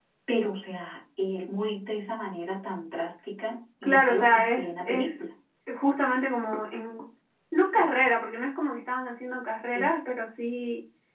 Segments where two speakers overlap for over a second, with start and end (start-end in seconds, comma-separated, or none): 3.8-5.2